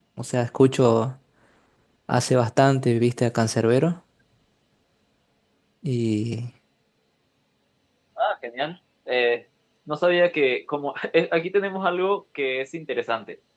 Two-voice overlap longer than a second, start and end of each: none

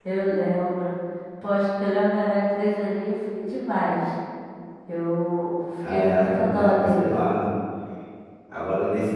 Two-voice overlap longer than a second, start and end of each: 5.9-7.2

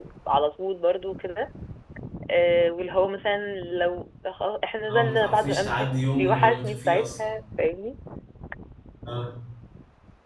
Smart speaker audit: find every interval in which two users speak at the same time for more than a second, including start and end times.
4.9-7.4

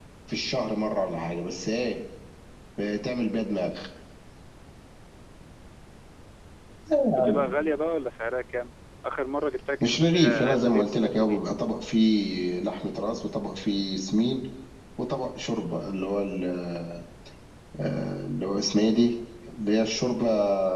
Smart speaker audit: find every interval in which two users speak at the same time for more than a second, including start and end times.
9.8-11.4

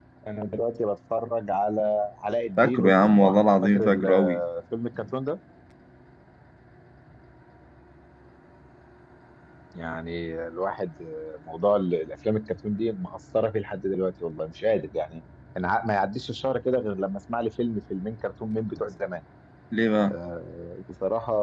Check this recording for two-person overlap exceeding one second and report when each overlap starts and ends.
2.6-4.4

